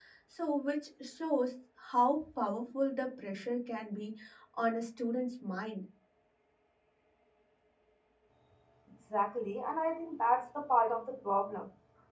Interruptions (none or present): none